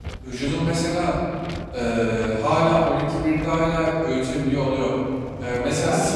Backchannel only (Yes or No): Yes